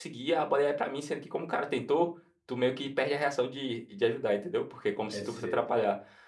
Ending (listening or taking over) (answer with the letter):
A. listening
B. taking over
A